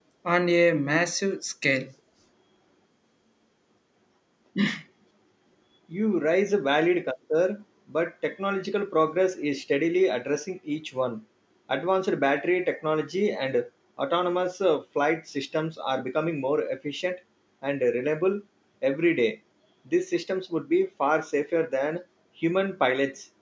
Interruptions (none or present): none